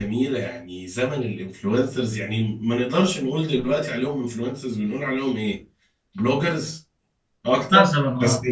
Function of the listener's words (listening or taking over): listening